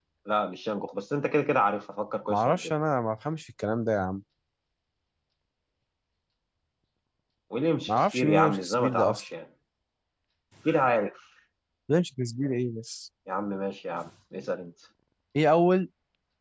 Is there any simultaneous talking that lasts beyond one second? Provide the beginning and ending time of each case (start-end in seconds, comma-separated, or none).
7.9-9.2